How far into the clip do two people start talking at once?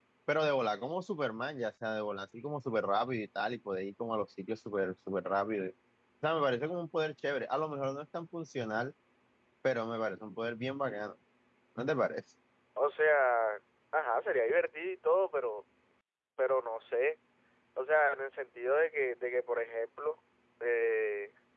none

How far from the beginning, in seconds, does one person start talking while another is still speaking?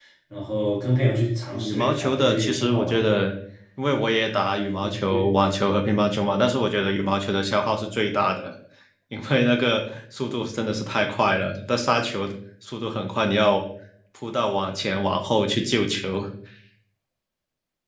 2 s

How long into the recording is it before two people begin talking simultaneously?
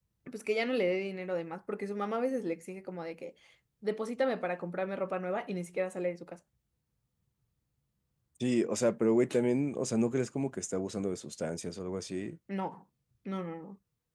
none

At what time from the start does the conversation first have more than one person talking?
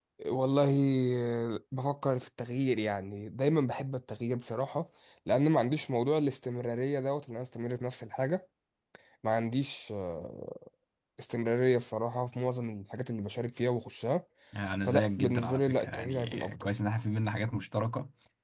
15 s

